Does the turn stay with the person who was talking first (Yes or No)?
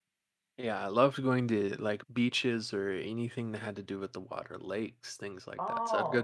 Yes